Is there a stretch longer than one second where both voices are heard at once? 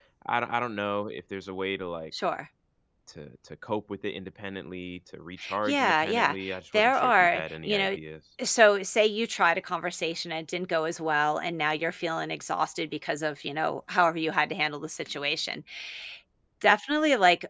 Yes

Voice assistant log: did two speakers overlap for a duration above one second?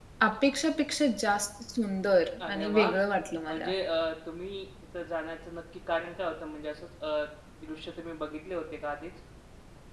No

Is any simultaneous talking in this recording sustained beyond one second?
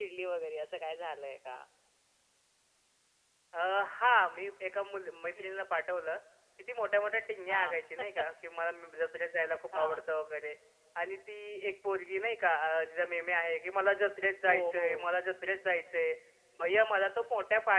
No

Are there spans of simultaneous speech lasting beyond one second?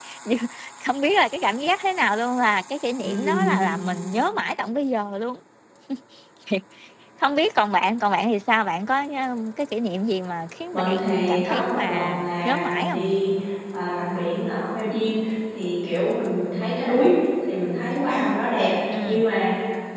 Yes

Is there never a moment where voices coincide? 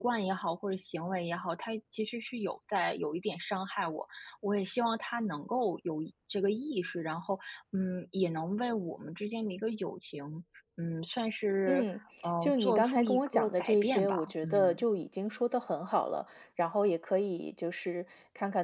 No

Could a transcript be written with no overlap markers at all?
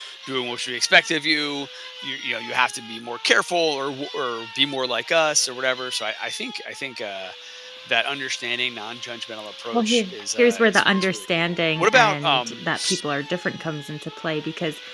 No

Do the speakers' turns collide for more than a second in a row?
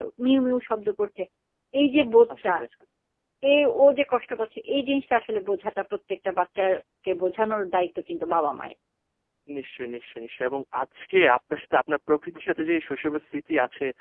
No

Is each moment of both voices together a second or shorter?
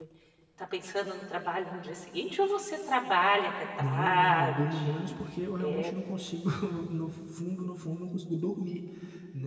No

